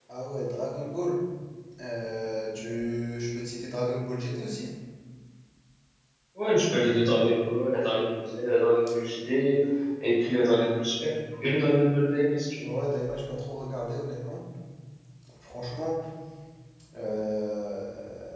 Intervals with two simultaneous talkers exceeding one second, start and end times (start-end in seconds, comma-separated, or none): none